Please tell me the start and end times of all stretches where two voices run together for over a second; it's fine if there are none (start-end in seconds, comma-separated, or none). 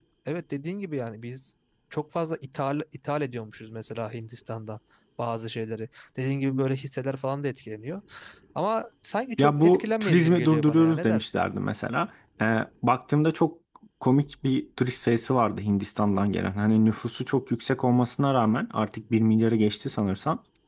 9.4-11.4